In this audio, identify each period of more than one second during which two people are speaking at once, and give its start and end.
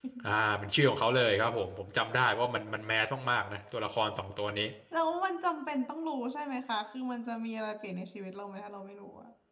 none

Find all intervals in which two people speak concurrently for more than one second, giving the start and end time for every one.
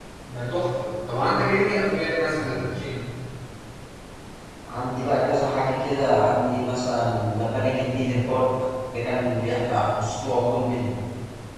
none

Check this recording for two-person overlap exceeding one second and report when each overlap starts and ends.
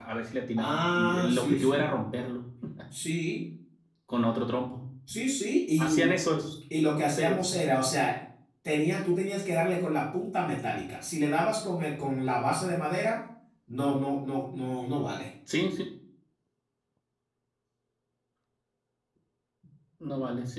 0.6-1.9

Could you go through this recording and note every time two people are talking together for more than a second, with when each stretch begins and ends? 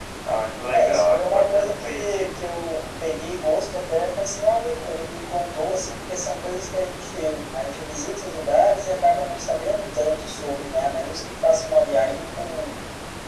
0.7-2.3

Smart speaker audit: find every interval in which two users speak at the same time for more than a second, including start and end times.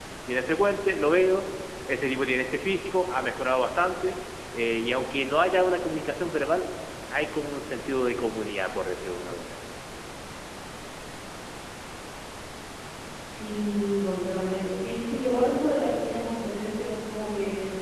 none

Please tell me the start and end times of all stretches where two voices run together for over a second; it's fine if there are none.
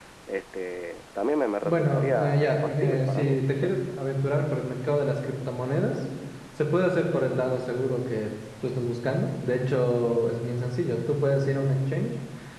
1.6-3.7

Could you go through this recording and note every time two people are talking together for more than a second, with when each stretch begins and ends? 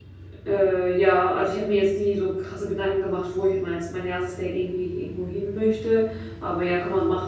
none

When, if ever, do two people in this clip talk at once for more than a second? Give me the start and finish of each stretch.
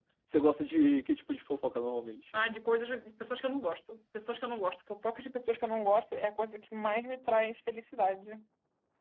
none

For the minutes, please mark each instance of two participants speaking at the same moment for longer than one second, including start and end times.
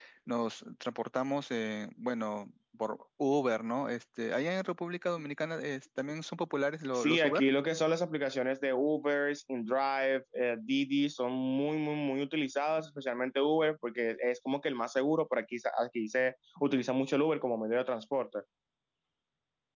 none

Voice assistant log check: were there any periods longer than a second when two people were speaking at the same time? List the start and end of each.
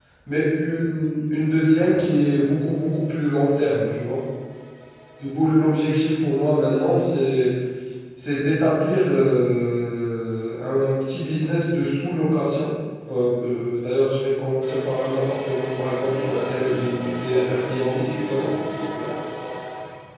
16.0-18.5

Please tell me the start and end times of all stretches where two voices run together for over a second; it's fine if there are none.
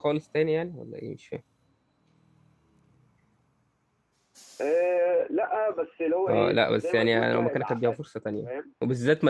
6.3-8.0

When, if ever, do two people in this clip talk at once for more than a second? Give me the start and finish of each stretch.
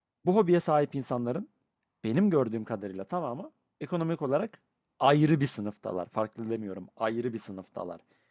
none

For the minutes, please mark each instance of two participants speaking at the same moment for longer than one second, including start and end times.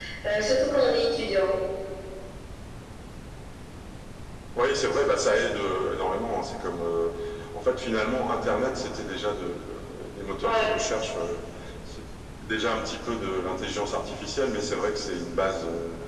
none

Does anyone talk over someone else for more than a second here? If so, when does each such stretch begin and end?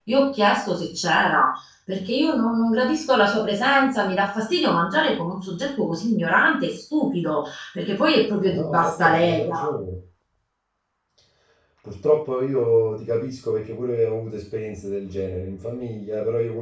8.5-9.7

